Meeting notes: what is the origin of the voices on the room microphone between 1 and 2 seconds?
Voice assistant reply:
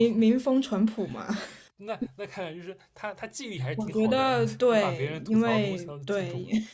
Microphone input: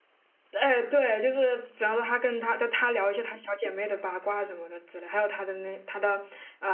user only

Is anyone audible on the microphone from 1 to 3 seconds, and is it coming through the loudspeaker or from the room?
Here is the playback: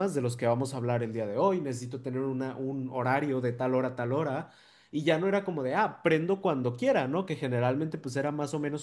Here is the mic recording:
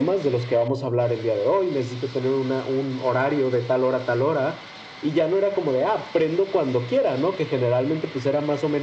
echo only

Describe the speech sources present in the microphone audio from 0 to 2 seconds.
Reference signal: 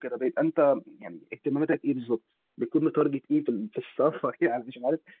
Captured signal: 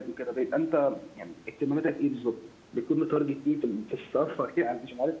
echo only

